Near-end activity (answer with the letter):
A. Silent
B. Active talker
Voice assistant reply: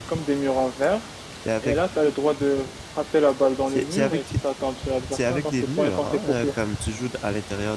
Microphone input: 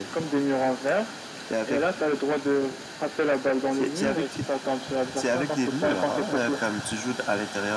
A